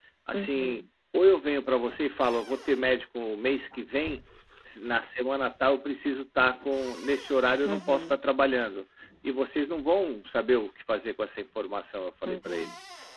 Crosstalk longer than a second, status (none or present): none